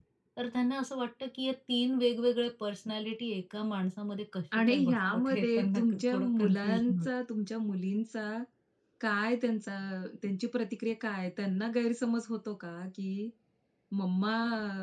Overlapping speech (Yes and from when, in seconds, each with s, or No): Yes, from 4.5 s